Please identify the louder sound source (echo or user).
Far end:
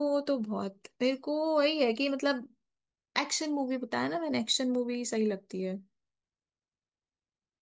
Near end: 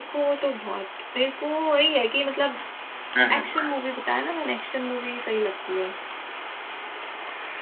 user